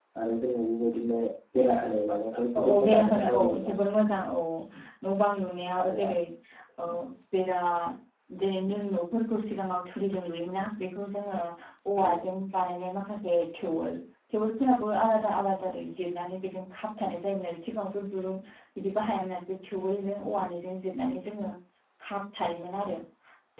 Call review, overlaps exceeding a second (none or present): present